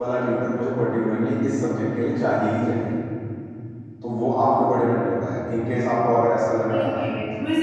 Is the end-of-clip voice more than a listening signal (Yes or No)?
Yes